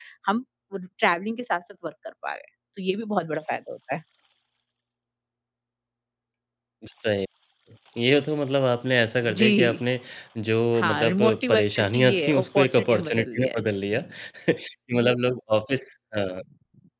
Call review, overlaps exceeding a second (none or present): present